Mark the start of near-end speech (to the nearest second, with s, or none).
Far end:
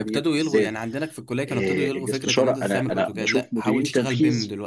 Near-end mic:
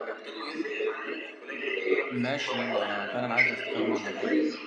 2 s